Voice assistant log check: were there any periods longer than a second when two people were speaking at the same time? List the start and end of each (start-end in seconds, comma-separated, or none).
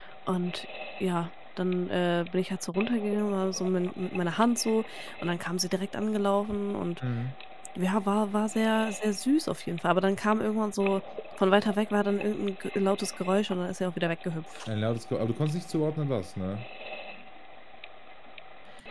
none